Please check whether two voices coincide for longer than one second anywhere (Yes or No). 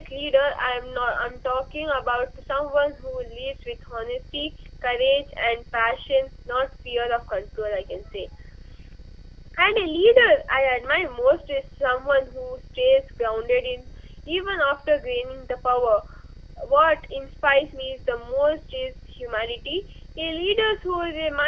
No